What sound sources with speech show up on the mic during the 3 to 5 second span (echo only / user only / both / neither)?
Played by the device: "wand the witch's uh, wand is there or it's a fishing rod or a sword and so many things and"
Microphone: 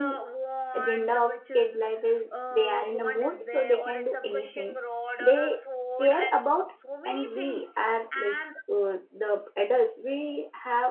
both